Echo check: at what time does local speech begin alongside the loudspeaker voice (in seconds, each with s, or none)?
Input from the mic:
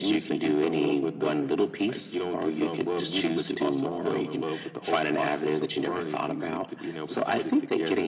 none